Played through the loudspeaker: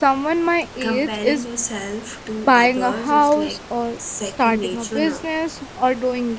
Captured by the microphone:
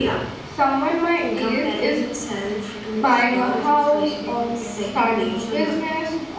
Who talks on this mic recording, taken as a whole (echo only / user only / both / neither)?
both